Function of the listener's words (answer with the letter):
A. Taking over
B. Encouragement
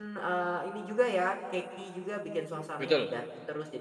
B